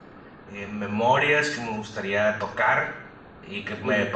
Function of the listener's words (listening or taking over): listening